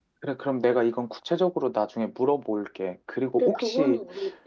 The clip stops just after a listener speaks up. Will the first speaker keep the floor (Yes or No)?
No